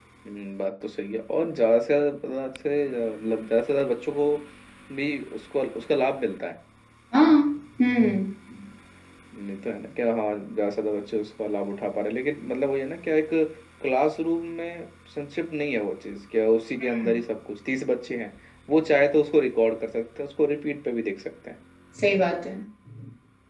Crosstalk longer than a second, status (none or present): none